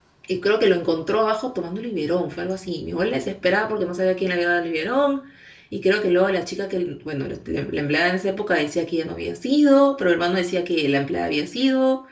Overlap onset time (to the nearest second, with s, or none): none